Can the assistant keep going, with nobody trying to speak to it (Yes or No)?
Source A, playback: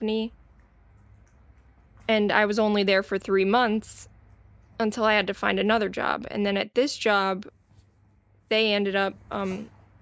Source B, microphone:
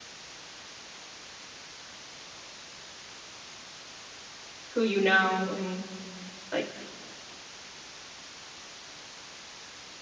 No